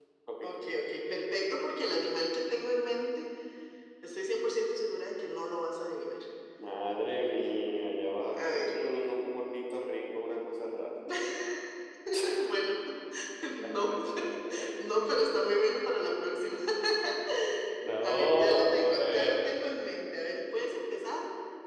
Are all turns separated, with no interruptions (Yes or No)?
No